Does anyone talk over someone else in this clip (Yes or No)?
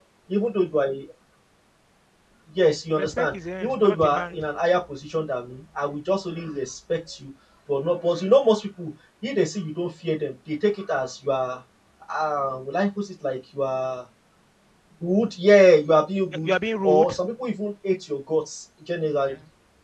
Yes